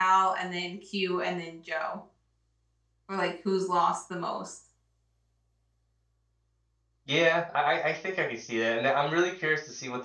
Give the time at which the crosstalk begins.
none

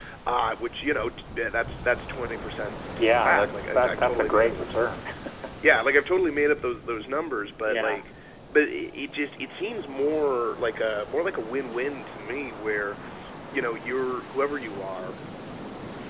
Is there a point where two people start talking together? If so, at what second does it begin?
3.0 s

